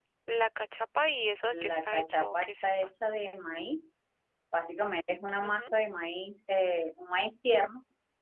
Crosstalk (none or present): present